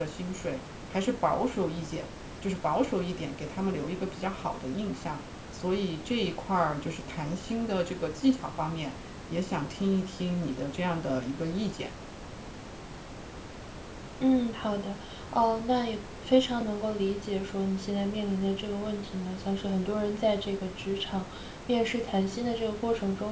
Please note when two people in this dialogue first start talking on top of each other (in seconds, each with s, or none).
none